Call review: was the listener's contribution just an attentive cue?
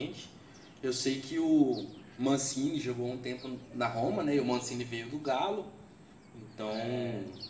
Yes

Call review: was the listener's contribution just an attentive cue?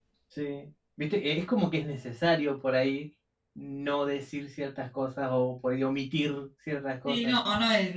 No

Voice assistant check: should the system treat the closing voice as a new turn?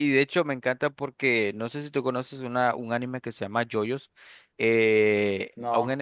No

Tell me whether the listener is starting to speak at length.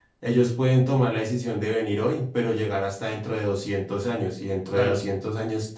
No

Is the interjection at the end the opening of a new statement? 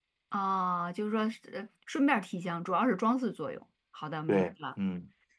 Yes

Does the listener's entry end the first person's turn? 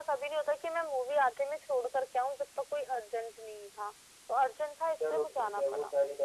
Yes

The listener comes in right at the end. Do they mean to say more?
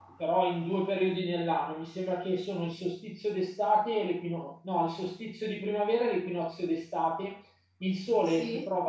No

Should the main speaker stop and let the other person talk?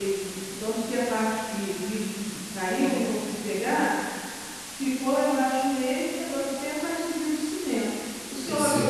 No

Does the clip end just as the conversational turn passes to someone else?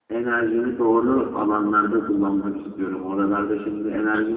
No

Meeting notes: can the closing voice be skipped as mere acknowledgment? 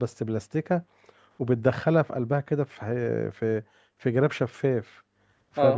No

